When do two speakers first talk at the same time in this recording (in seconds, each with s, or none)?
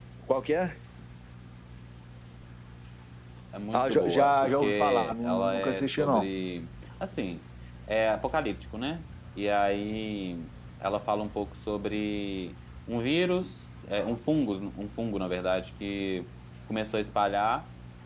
3.7 s